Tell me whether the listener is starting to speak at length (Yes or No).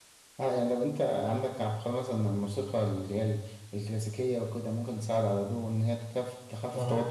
No